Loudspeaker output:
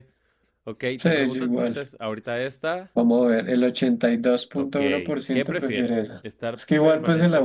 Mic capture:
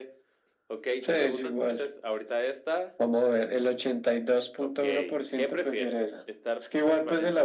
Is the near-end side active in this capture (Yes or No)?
No